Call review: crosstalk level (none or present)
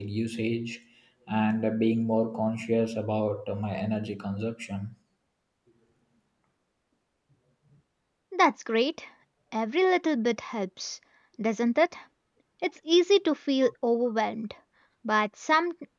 none